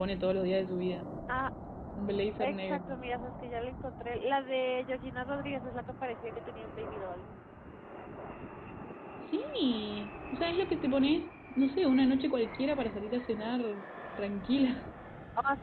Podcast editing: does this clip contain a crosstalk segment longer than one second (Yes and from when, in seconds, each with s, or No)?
No